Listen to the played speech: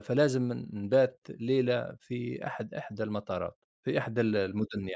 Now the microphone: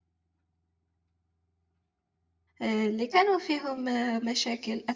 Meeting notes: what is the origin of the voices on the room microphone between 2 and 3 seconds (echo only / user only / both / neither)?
user only